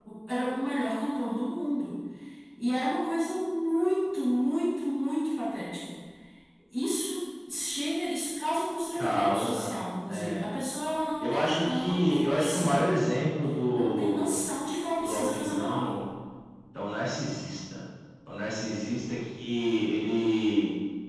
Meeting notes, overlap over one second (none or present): present